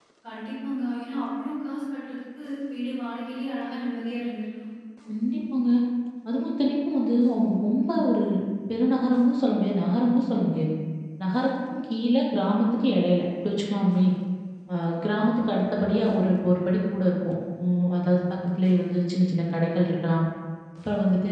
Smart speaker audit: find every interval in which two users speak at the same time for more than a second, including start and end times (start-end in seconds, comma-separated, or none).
none